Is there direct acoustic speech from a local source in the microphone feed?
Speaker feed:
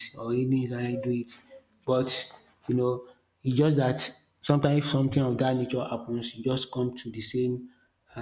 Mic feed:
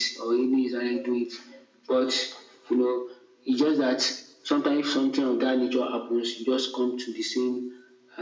No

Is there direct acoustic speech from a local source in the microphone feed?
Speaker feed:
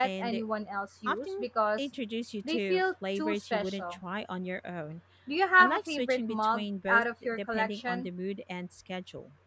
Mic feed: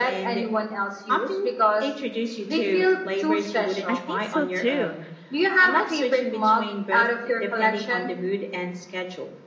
Yes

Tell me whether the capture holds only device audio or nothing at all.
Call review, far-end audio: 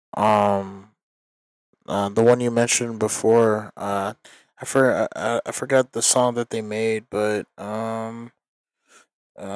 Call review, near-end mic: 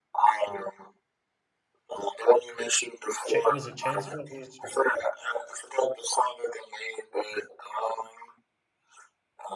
No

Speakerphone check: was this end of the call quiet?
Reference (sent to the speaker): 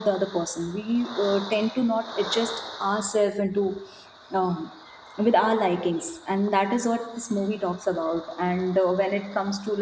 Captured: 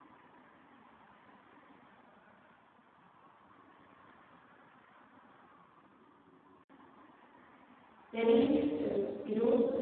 No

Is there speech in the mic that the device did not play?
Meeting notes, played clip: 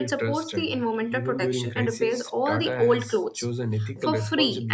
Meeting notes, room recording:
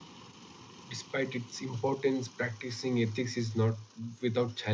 Yes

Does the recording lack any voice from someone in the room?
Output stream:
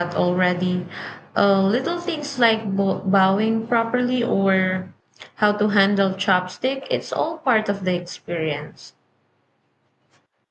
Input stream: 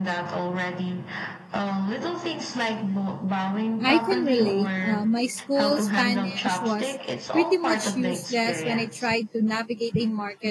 No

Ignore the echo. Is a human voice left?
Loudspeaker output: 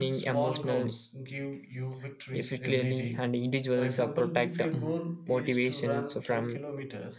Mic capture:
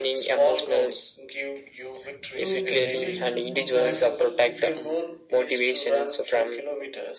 Yes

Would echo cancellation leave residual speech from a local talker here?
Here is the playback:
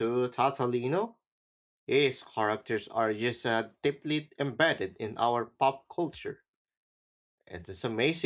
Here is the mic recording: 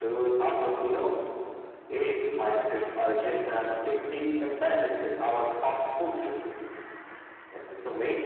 No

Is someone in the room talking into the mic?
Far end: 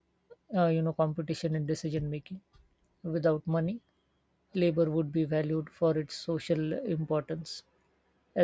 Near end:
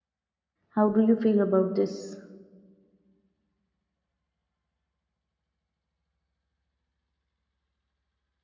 Yes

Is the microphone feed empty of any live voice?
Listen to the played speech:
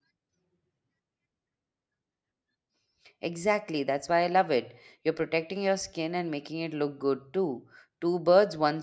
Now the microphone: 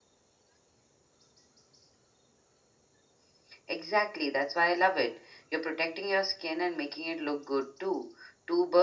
Yes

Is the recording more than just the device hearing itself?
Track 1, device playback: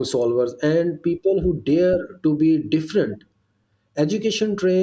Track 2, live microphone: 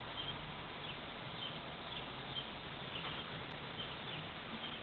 No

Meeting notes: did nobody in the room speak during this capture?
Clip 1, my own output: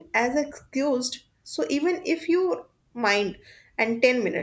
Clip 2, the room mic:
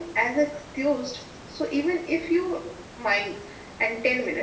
Yes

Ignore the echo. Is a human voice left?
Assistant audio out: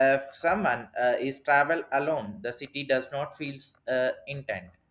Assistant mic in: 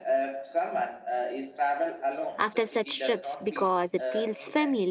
Yes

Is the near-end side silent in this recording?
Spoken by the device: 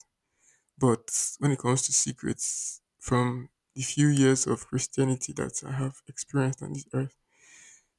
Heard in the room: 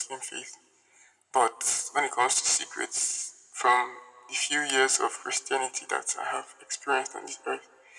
Yes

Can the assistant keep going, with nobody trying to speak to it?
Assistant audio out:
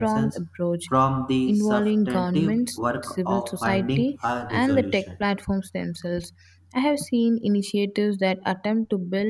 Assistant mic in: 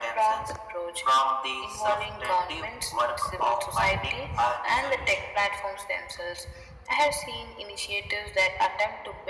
Yes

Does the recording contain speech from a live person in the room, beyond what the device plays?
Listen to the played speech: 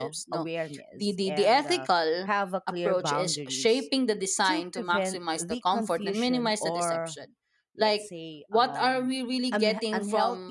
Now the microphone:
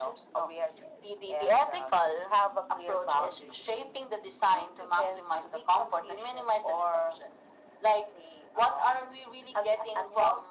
No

